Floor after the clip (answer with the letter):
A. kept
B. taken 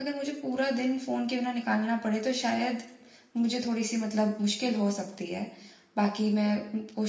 A